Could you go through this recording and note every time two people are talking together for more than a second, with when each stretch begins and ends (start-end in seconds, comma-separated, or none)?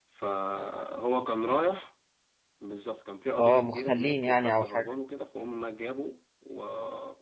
3.4-4.9